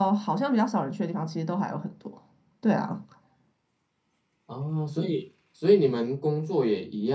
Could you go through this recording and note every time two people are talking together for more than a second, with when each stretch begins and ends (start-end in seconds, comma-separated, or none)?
none